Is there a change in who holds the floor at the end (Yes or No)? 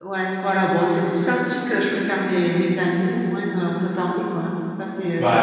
Yes